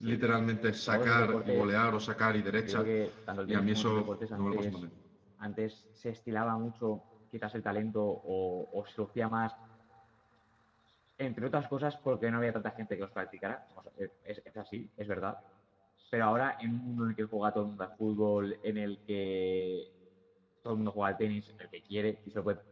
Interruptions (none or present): present